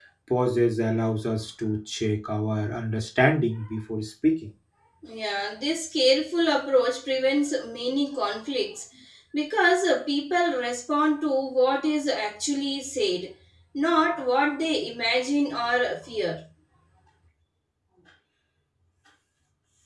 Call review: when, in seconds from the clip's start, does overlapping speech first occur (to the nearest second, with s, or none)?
none